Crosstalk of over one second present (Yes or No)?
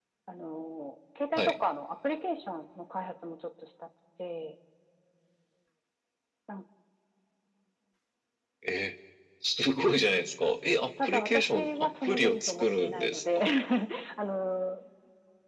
Yes